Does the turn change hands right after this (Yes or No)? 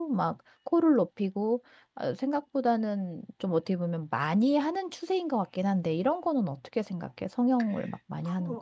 Yes